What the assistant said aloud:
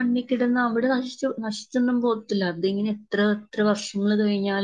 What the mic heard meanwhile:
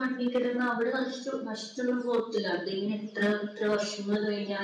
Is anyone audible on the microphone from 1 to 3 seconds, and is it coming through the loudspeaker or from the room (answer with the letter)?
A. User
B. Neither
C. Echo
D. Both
C